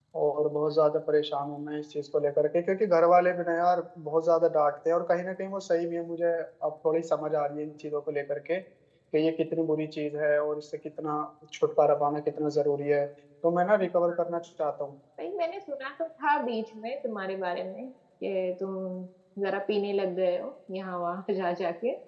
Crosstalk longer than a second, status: none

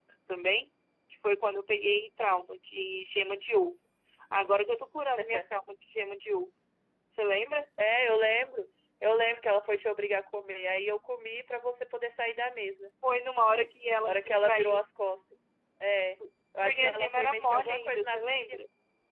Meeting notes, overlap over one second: present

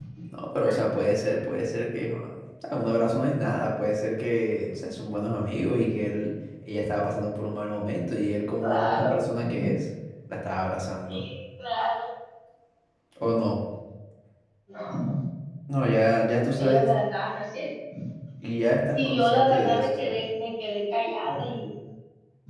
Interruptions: present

